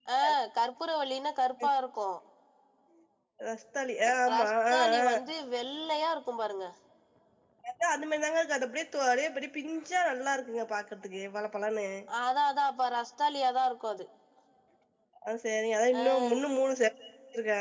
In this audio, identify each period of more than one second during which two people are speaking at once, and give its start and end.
none

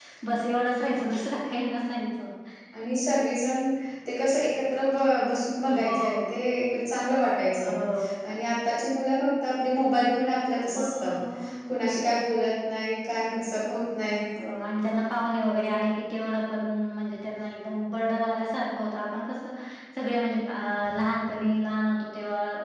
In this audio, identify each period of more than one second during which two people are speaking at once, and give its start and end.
none

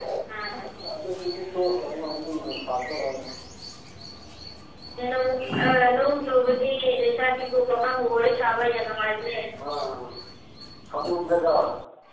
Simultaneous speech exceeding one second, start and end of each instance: none

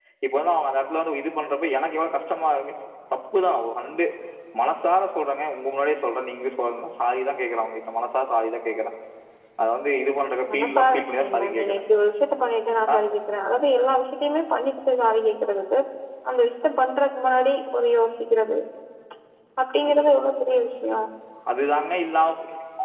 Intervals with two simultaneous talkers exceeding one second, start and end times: 10.5-11.8

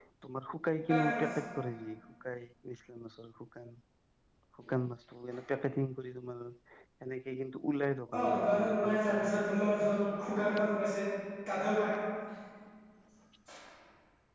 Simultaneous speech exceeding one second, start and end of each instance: 8.1-9.4

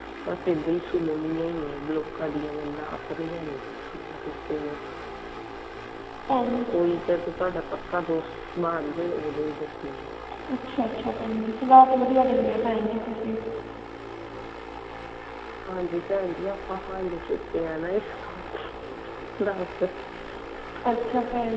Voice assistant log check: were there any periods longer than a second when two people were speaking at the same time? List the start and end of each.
none

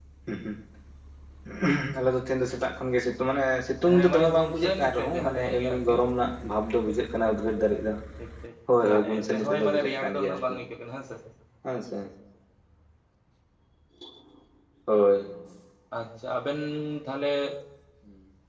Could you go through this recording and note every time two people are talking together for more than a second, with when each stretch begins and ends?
3.8-6.0, 8.9-10.6

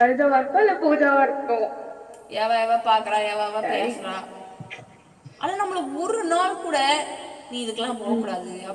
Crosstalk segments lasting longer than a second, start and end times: none

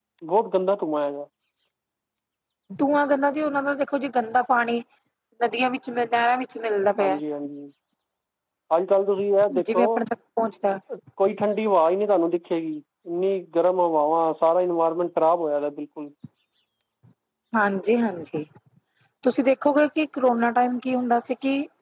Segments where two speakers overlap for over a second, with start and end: none

